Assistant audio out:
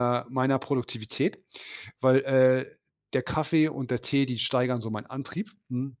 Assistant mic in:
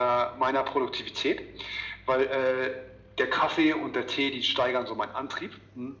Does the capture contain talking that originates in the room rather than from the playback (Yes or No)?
No